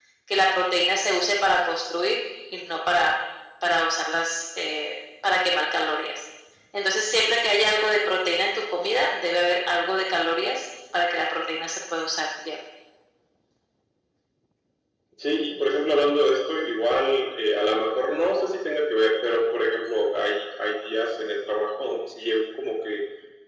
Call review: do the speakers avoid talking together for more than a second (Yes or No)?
Yes